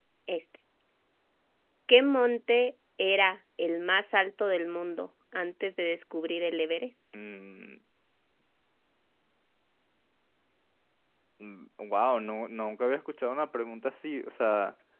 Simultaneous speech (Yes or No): No